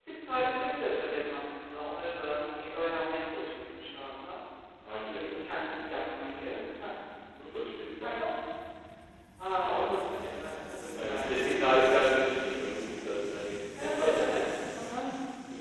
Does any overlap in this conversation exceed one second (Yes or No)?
Yes